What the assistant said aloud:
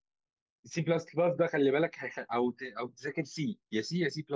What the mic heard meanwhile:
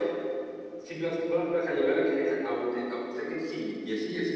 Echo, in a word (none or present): present